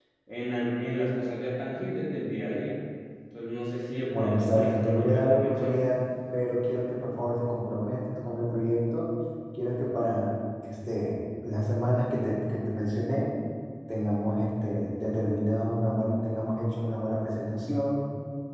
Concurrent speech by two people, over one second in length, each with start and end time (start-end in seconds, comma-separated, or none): 4.2-5.8